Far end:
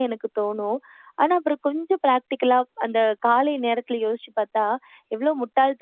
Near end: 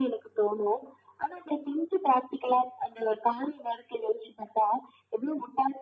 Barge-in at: none

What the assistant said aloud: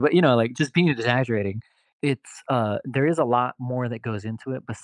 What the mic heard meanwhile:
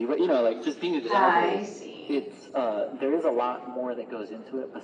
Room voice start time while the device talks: 1 s

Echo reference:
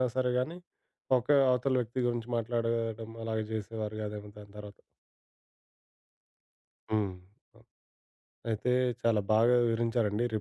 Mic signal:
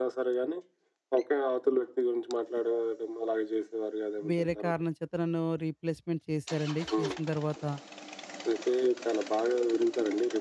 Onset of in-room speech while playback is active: 4 s

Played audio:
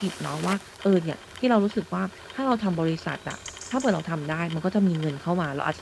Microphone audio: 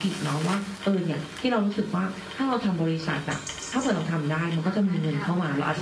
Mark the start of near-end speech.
5 s

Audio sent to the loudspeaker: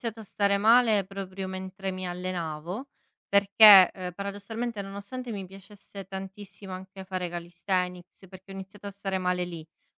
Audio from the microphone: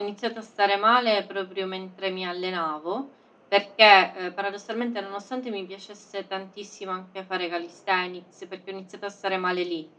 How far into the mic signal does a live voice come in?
none

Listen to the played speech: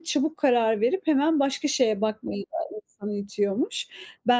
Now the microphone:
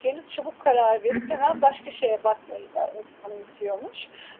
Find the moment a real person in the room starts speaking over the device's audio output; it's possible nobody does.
1 s

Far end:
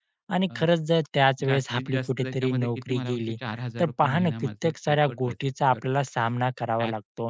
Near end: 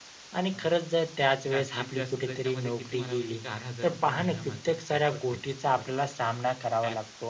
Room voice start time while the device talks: none

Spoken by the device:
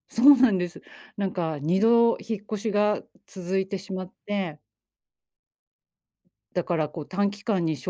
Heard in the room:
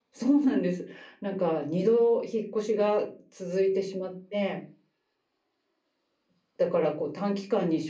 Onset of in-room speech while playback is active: none

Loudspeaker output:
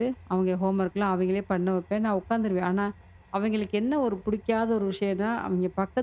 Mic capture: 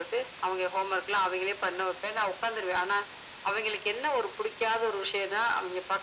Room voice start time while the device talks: none

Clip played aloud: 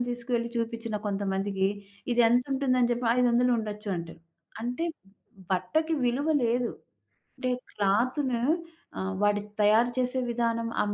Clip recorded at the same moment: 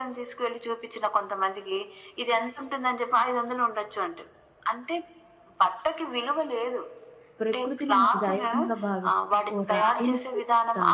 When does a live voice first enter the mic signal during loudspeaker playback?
7 s

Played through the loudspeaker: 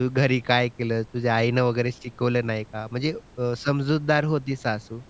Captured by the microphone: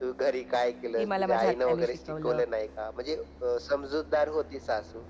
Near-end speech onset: 1 s

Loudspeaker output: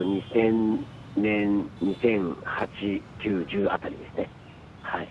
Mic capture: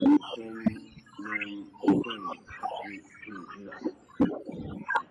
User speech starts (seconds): none

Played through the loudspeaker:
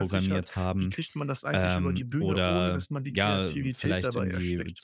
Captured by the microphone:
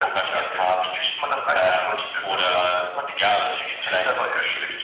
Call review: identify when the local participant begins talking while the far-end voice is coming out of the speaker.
none

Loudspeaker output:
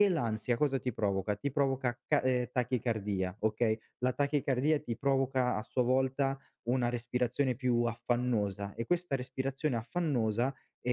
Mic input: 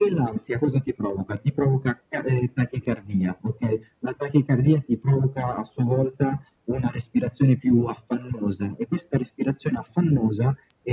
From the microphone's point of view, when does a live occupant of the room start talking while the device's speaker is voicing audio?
none

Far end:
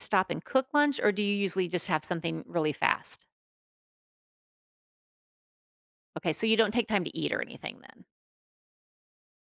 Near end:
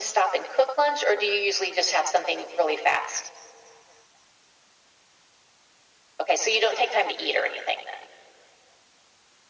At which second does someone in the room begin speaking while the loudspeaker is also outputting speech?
none

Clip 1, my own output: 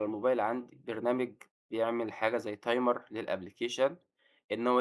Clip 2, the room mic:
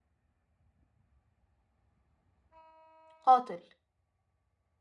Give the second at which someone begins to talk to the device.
3 s

